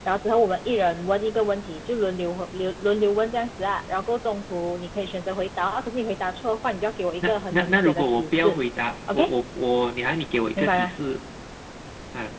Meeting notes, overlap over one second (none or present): present